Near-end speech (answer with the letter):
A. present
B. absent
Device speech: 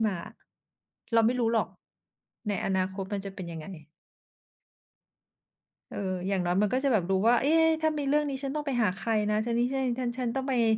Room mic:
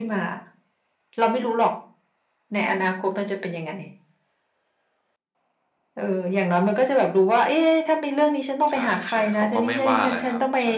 A